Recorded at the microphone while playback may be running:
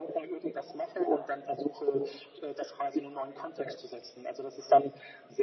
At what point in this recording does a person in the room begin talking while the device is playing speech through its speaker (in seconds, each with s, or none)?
none